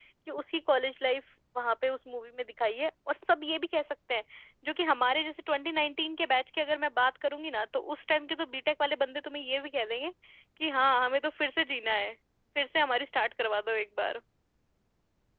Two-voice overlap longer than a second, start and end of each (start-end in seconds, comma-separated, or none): none